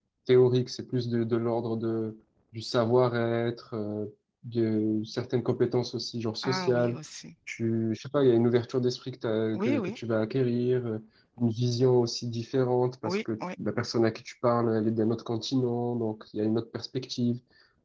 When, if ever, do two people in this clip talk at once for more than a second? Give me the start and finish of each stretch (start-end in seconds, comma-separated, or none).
none